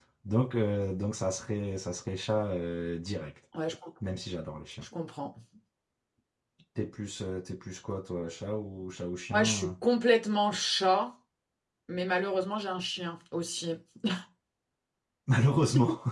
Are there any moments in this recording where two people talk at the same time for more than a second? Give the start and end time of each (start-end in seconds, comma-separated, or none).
none